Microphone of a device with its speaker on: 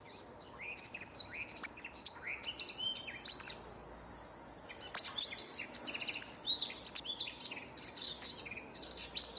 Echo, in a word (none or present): none